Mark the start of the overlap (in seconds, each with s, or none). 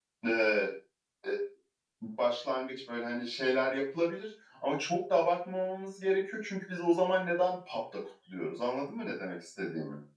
none